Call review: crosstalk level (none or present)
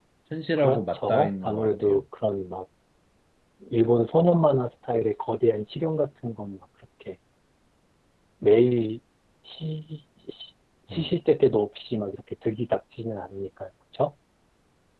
present